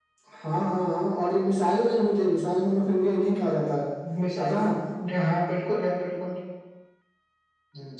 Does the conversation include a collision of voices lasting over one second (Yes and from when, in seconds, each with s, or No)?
No